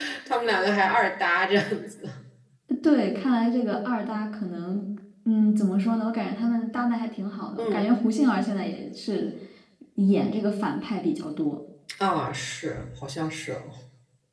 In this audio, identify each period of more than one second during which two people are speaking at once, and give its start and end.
none

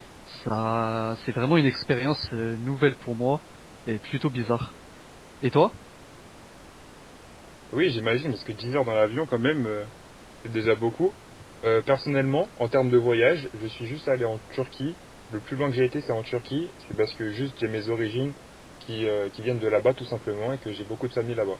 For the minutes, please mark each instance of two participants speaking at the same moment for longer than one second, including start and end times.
none

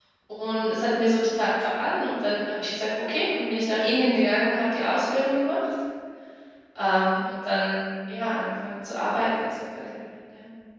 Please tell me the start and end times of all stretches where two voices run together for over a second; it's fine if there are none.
none

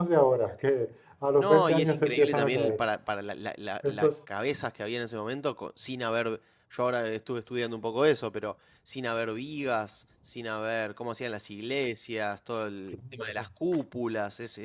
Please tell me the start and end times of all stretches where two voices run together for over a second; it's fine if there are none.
1.4-2.8

